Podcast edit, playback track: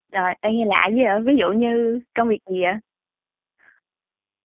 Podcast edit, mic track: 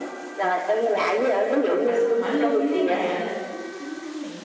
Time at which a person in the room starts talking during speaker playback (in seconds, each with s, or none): 1.8 s